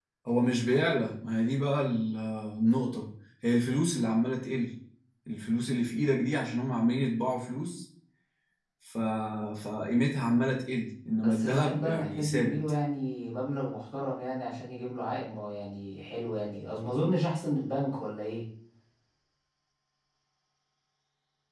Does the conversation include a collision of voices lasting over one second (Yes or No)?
Yes